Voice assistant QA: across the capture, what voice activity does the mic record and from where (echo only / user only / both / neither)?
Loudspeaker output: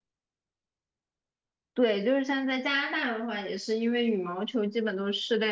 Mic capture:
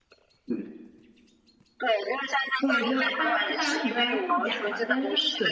both